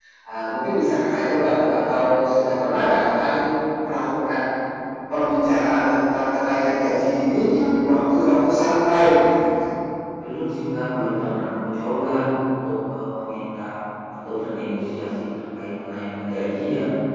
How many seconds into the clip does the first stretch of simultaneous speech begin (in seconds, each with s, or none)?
0.9 s